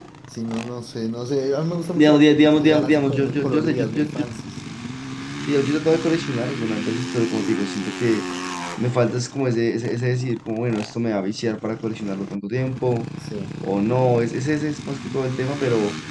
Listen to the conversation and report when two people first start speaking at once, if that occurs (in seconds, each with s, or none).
1.9 s